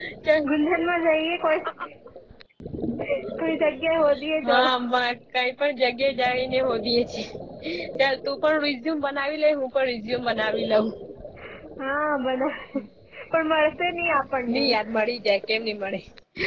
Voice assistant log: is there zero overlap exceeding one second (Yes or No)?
Yes